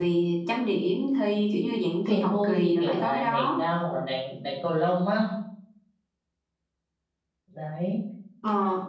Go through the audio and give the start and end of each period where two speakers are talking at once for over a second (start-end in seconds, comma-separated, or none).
2.1-3.6